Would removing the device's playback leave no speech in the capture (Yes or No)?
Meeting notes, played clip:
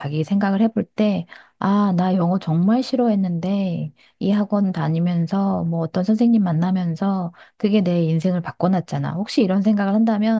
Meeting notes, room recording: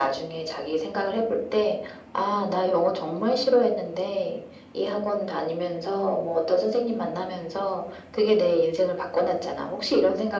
Yes